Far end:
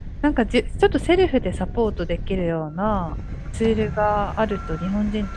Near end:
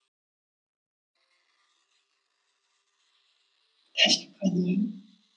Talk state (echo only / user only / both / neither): user only